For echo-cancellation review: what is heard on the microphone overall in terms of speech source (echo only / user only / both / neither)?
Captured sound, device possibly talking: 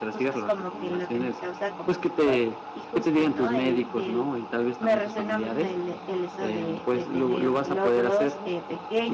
both